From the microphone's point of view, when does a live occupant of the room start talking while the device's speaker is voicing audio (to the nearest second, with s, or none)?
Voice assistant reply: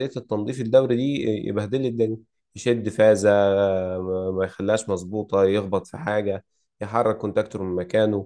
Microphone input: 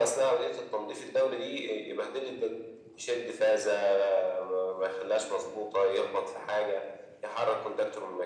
none